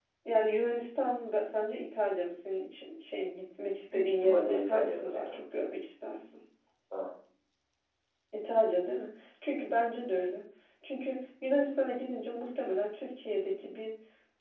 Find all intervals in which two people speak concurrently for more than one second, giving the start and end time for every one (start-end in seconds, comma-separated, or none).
3.9-5.4